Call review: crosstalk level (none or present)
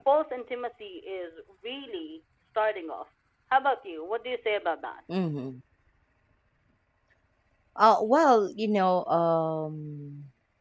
none